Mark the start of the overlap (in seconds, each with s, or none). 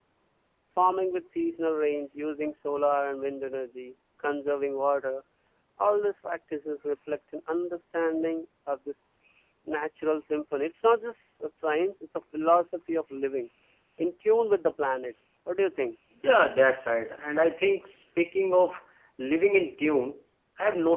none